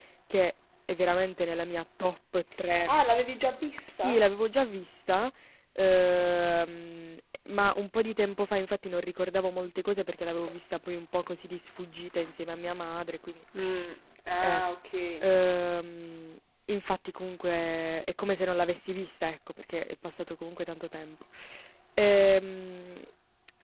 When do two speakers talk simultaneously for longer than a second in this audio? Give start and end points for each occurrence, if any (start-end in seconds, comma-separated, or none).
none